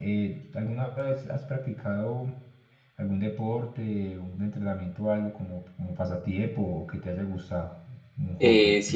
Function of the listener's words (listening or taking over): taking over